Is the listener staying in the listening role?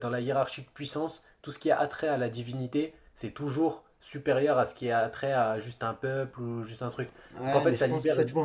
No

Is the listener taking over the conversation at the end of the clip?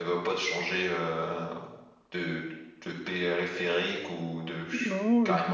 Yes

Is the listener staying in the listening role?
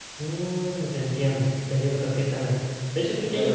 Yes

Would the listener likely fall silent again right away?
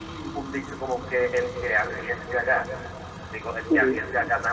Yes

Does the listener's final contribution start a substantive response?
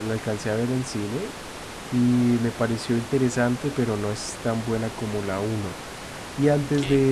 No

